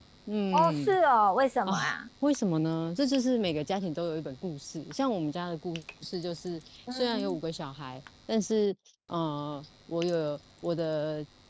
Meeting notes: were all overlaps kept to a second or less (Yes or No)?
Yes